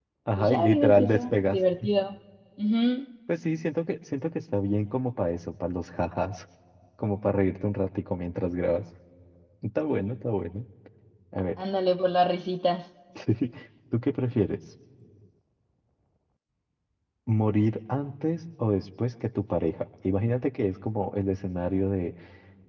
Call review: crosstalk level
present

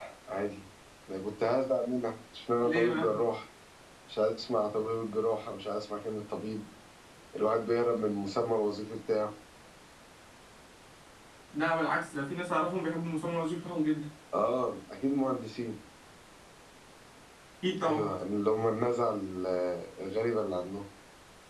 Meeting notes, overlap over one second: none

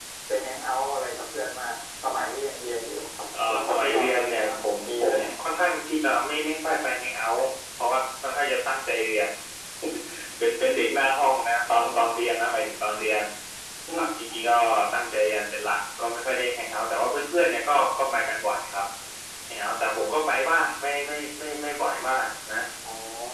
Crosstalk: present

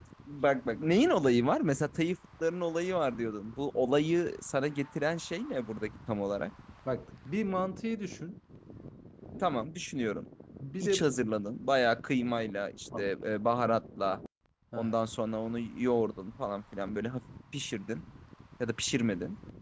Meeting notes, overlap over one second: none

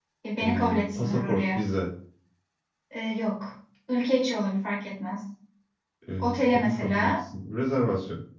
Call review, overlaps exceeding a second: present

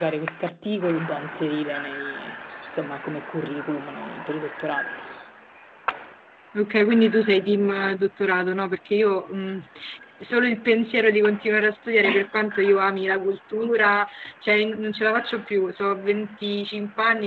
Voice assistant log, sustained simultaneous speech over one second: none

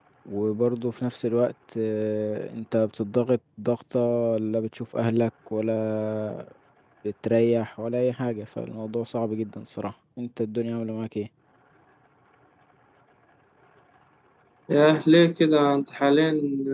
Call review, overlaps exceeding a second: none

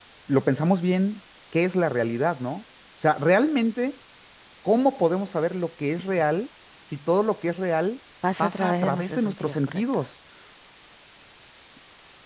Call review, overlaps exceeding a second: present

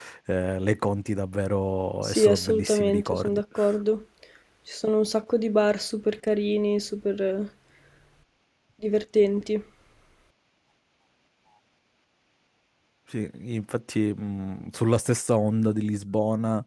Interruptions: present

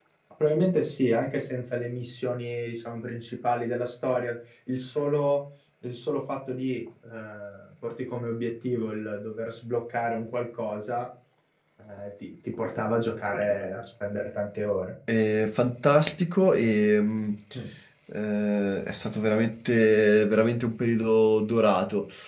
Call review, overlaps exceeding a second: none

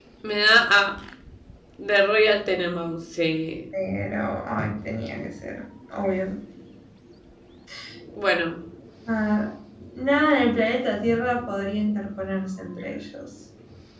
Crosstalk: none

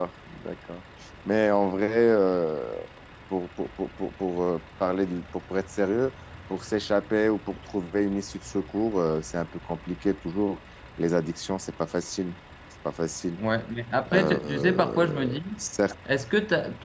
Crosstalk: present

